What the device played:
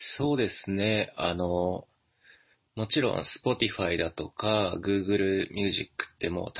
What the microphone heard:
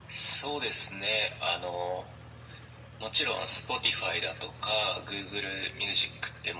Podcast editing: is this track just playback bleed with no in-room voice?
Yes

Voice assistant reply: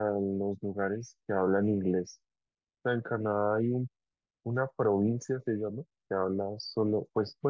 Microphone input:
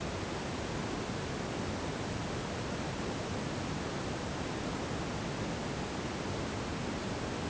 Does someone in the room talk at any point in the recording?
No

